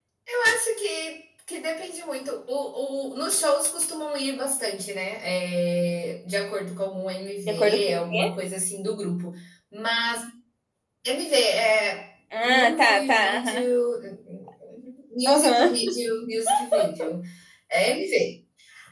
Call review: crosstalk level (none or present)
present